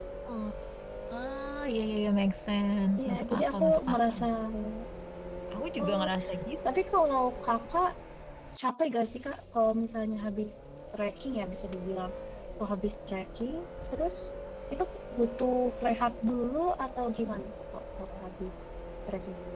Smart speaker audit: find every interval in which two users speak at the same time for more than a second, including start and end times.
3.0-4.2

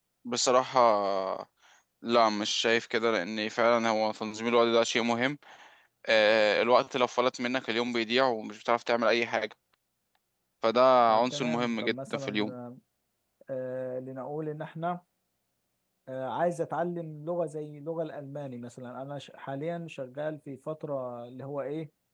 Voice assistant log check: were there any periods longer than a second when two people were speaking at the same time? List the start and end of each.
11.2-12.5

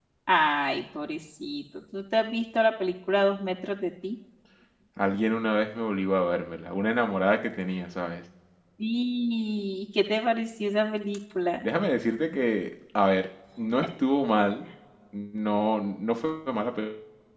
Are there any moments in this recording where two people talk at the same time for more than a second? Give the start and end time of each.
none

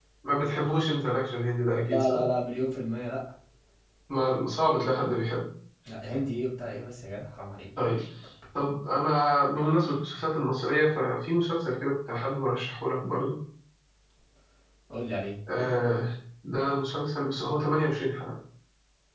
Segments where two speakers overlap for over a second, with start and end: none

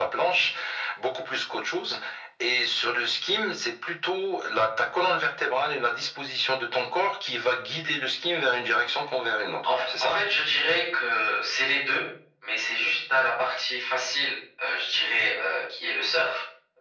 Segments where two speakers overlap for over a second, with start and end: none

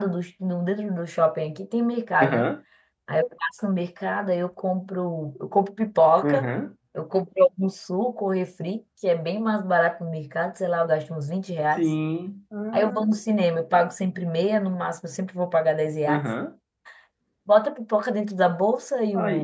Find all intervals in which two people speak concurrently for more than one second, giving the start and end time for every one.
none

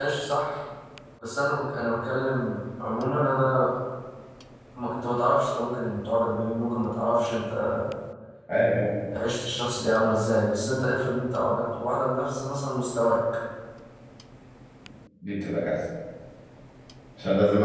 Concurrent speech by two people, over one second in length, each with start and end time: none

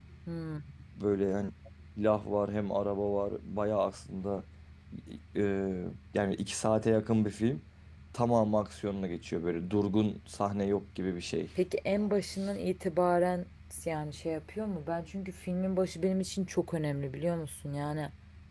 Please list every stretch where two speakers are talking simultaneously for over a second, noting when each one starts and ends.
none

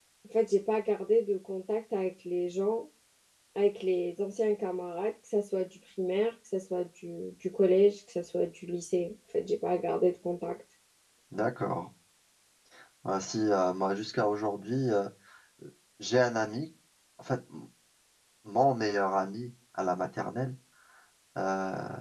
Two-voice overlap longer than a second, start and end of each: none

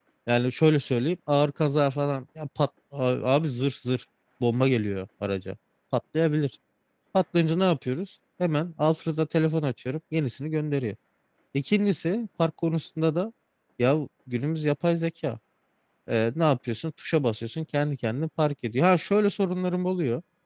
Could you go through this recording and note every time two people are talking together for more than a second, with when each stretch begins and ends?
none

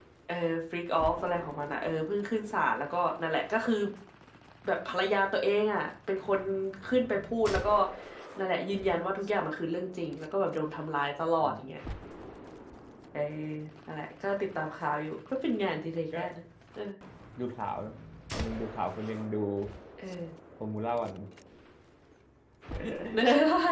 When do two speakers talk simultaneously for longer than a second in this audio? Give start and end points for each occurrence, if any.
none

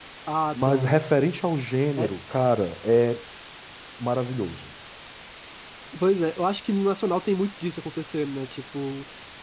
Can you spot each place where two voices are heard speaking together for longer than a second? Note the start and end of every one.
none

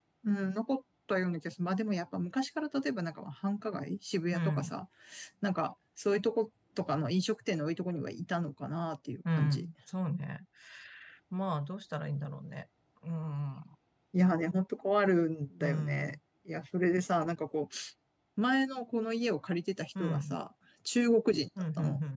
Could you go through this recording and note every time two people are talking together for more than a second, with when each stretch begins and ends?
none

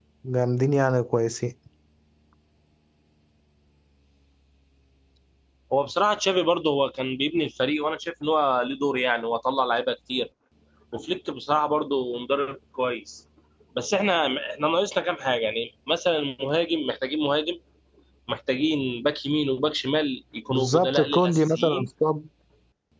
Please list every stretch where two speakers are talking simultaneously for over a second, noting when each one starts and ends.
20.5-21.9

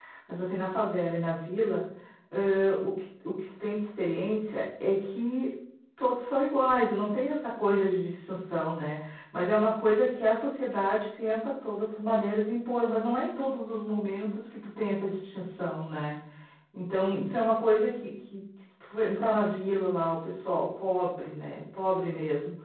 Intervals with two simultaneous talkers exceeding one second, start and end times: none

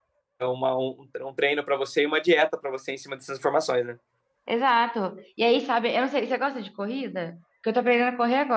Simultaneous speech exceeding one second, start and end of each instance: none

